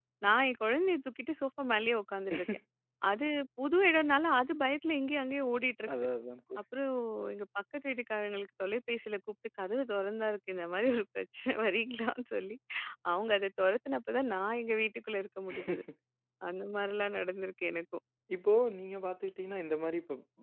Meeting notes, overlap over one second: none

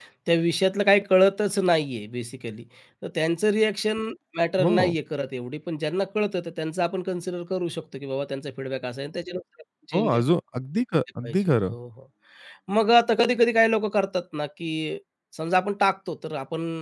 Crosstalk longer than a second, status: none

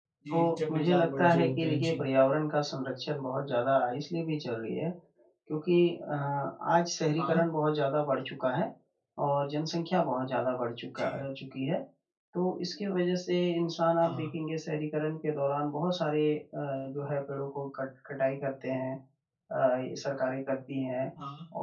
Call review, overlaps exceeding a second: present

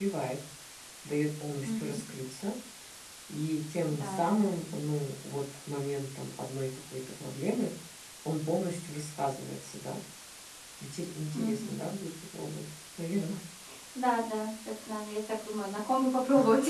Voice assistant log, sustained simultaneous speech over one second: none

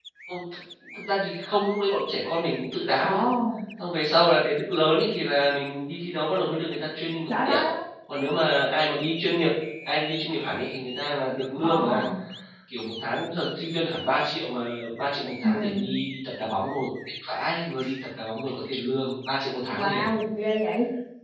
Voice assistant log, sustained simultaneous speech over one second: none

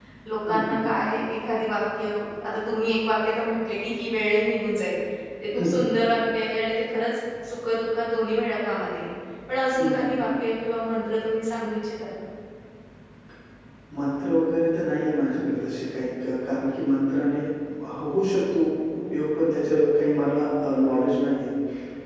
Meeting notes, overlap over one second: none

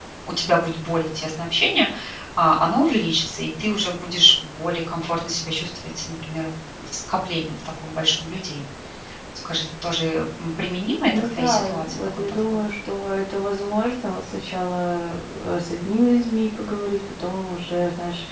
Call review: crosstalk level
present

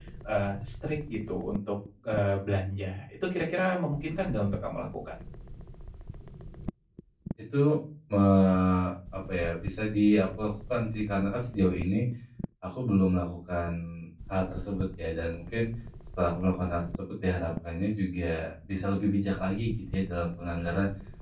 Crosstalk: none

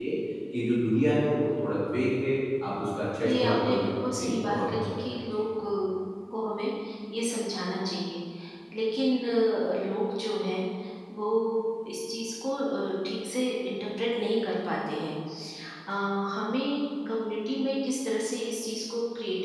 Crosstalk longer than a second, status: present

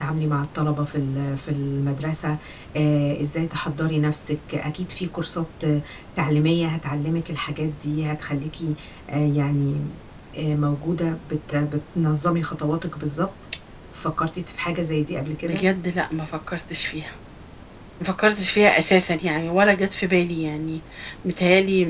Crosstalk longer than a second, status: none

